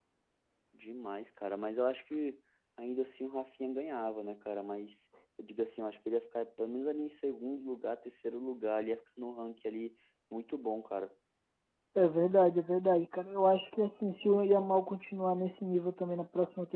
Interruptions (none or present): none